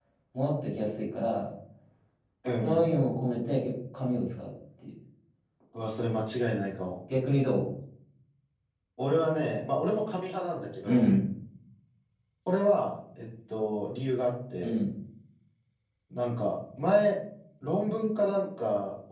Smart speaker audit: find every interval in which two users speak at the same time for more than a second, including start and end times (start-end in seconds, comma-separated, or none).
none